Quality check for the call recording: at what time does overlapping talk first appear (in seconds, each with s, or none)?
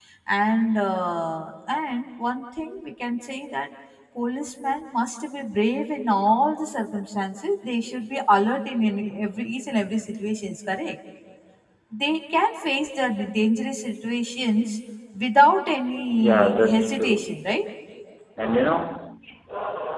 16.1 s